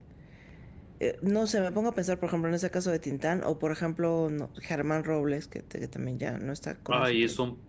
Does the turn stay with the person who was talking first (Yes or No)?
No